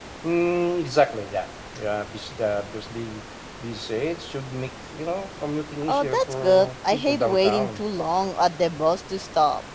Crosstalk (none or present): present